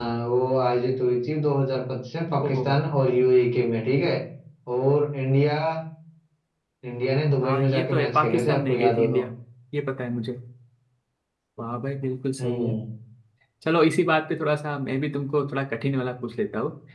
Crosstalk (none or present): present